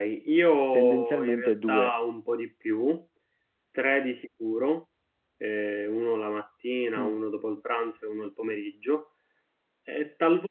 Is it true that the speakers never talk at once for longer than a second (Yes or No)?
No